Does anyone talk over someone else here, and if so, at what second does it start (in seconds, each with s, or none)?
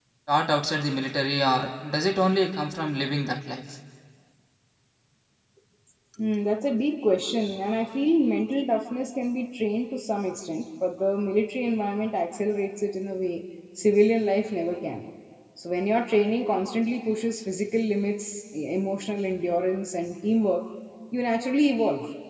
none